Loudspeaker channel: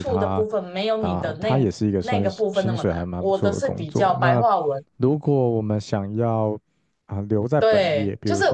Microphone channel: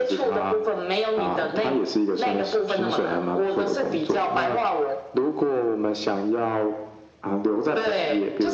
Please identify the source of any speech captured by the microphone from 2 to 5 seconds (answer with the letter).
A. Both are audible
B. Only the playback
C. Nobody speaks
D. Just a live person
B